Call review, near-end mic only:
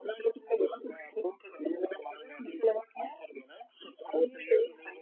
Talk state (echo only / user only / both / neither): echo only